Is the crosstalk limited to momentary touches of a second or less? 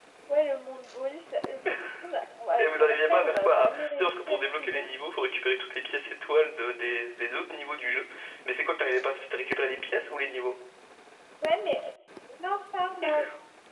No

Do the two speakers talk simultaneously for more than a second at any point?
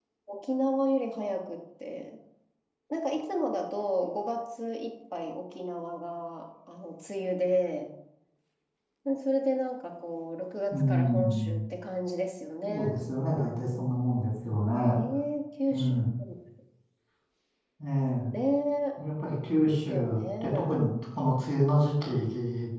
Yes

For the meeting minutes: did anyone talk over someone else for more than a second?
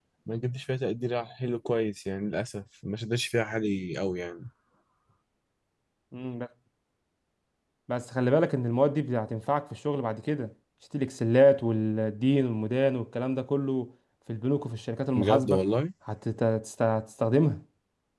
No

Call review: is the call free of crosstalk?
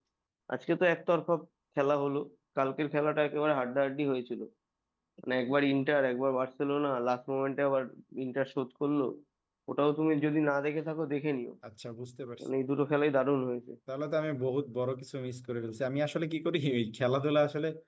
Yes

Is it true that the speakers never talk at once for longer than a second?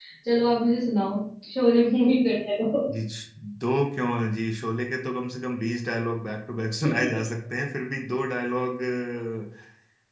Yes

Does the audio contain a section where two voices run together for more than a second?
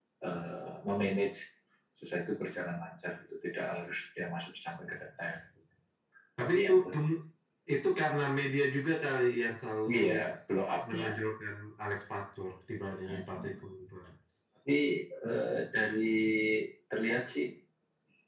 No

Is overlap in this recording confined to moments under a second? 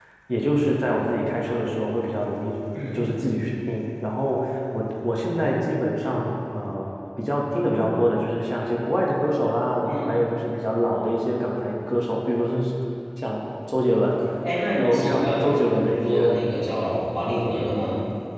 No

